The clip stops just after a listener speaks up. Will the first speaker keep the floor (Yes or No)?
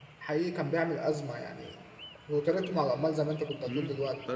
No